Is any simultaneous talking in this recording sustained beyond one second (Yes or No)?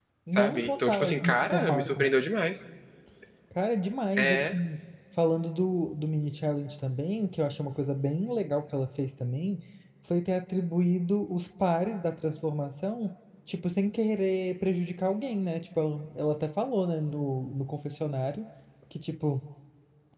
Yes